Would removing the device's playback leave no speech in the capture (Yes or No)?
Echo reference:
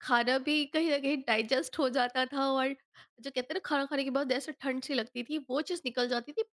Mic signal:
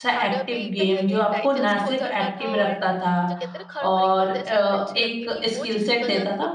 No